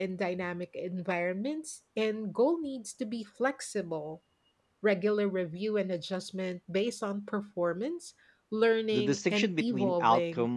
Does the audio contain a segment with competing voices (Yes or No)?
Yes